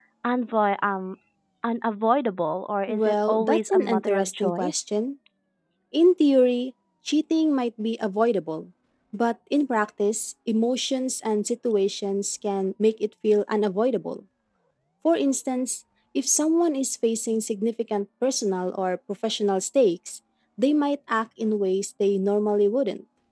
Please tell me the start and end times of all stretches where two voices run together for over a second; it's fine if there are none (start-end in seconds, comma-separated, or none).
2.9-4.7